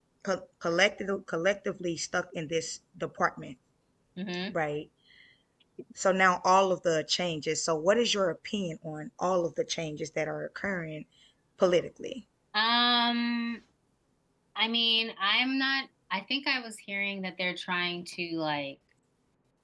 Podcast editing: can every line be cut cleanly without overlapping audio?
Yes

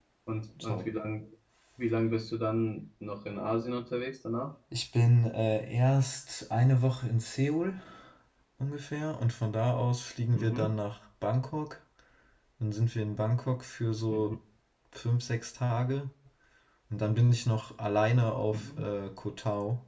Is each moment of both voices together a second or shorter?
Yes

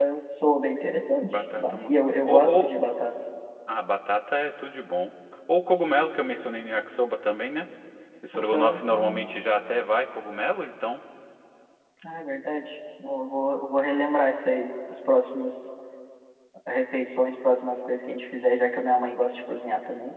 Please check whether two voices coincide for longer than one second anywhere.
Yes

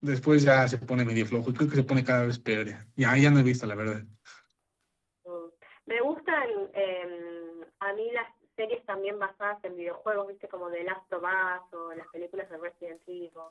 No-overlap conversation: Yes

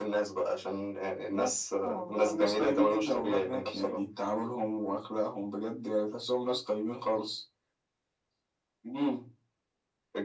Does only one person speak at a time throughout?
No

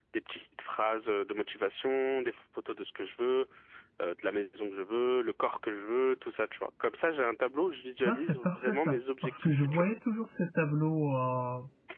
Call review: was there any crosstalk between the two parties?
Yes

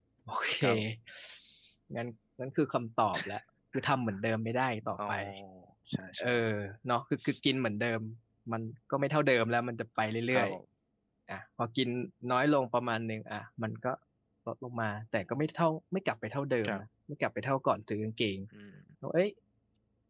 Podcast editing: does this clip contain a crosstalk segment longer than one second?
No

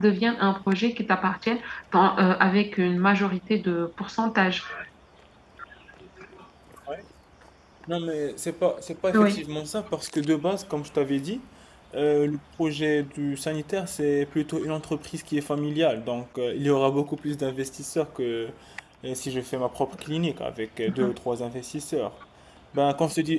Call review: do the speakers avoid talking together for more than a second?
Yes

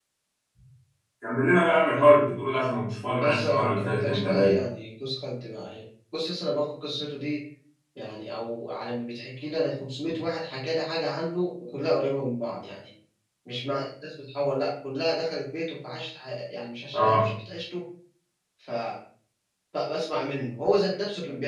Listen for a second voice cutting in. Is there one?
Yes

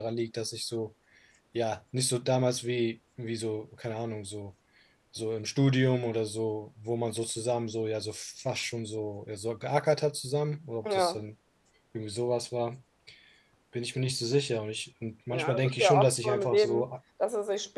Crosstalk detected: Yes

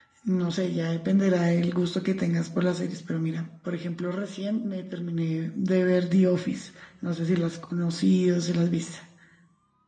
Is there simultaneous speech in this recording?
No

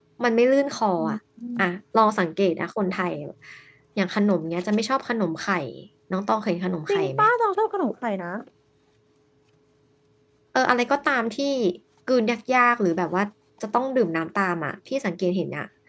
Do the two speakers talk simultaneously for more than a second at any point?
No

